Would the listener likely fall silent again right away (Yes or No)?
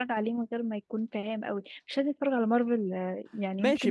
No